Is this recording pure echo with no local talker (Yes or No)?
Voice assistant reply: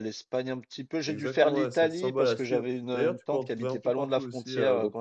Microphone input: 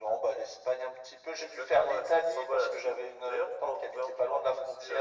Yes